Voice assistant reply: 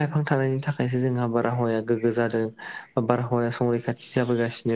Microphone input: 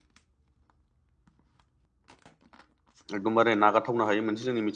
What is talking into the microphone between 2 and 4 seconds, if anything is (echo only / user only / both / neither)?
user only